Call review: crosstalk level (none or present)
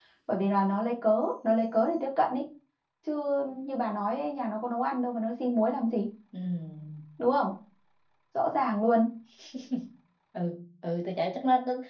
none